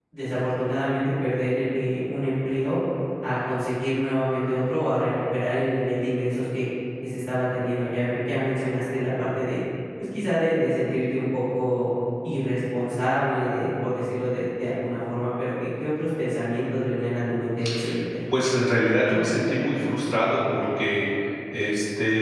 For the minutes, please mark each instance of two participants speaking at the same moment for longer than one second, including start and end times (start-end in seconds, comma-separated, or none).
none